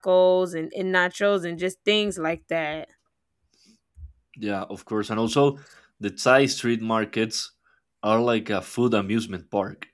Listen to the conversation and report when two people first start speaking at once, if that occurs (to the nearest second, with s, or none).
none